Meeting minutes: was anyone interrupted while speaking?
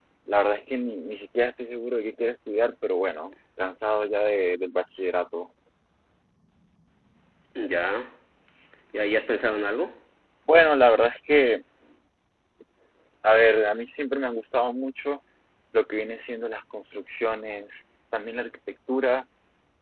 No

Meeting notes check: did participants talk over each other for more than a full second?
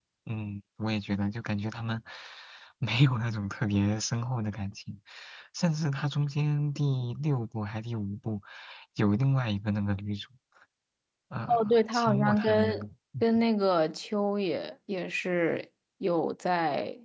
Yes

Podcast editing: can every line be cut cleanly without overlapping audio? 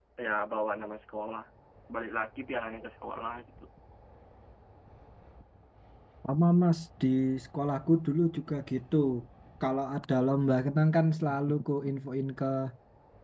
Yes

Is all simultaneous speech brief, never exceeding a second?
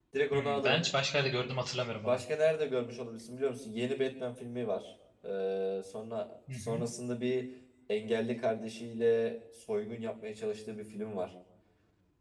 Yes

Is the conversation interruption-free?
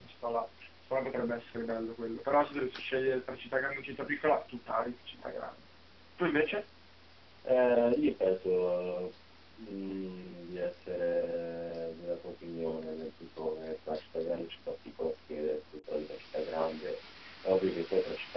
Yes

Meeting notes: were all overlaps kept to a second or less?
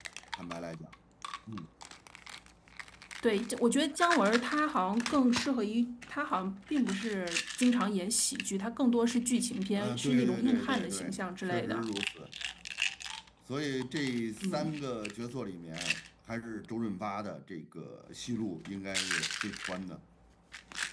No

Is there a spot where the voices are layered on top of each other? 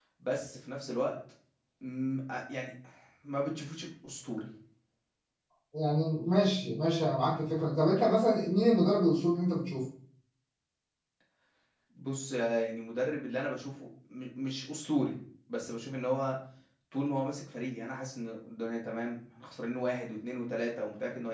No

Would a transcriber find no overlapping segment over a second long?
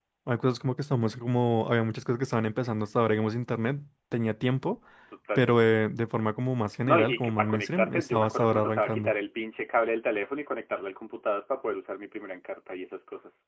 No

